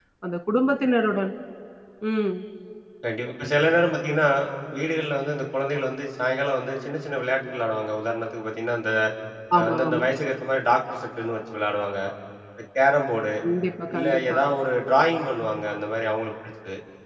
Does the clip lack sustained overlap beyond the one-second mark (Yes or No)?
Yes